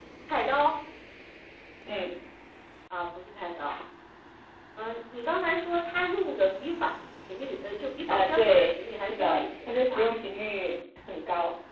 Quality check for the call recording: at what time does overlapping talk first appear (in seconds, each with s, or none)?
8.1 s